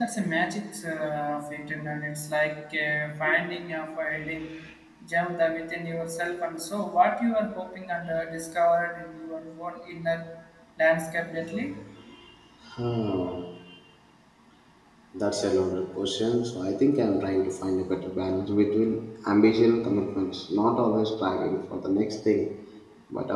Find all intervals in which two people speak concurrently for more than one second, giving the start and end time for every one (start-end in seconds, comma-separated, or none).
none